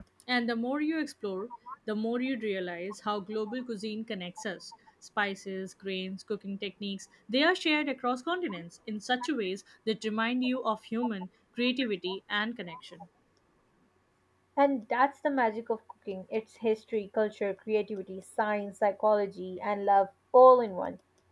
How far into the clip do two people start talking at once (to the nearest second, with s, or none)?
none